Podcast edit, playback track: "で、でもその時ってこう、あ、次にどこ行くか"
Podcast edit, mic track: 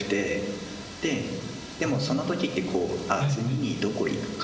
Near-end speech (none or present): present